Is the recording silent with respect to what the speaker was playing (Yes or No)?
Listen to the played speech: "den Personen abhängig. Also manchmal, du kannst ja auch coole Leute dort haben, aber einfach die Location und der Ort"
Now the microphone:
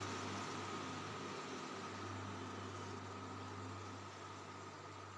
Yes